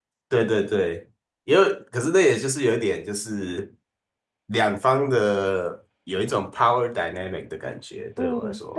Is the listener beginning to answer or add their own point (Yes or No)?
Yes